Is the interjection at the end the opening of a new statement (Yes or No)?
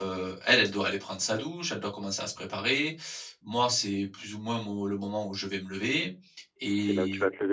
Yes